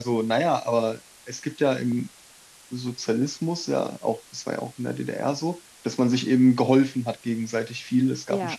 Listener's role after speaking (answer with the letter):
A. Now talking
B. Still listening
B